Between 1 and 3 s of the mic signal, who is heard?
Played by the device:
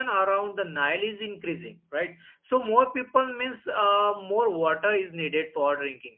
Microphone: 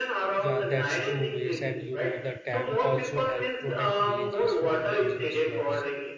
both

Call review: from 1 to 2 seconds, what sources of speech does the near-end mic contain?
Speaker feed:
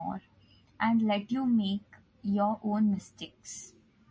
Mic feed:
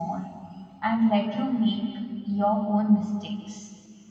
echo only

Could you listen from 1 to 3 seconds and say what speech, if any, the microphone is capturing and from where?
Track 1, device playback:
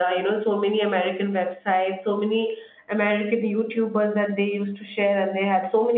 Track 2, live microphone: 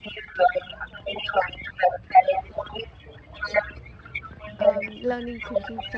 echo only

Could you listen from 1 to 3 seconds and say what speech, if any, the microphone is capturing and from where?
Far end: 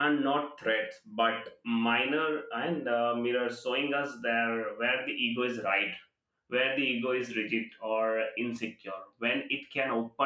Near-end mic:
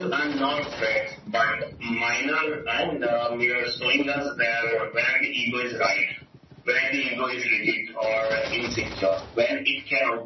echo only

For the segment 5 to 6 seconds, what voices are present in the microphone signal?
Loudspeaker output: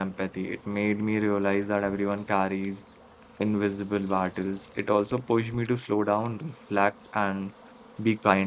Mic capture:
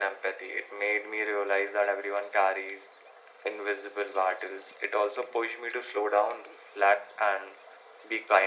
echo only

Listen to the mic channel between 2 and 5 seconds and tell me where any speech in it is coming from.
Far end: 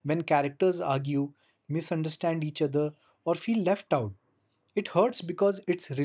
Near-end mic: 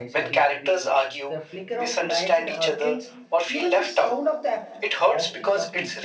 both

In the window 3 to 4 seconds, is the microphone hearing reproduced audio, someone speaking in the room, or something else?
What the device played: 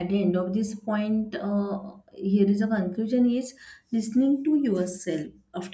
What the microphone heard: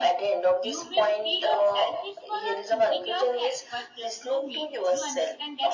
both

